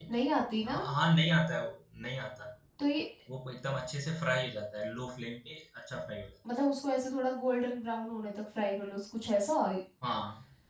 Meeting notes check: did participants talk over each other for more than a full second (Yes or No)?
No